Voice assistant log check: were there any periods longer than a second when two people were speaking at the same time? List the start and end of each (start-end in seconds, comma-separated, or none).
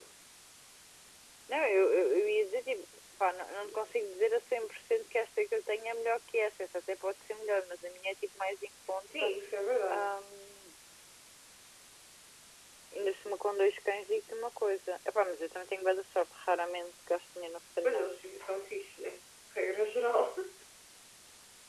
none